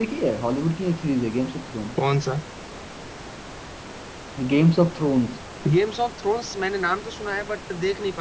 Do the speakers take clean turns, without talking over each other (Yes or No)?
Yes